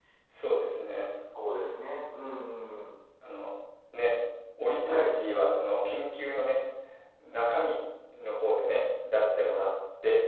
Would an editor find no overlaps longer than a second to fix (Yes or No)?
Yes